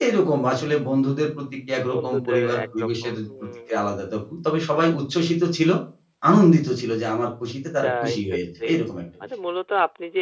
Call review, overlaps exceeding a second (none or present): present